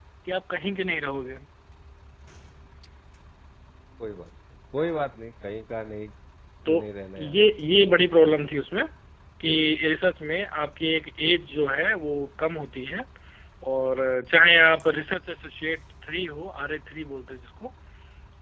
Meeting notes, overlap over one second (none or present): none